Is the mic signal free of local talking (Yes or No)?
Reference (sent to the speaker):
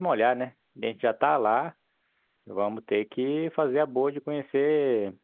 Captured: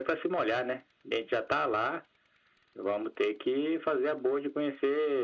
Yes